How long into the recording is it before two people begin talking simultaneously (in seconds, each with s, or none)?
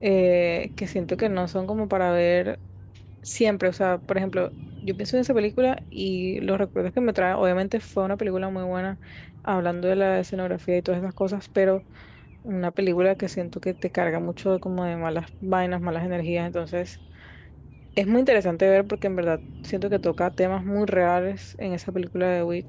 none